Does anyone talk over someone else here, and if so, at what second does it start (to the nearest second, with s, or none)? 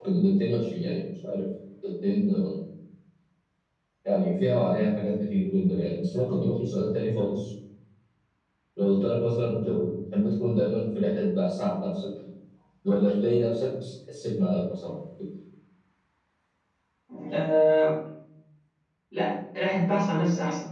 none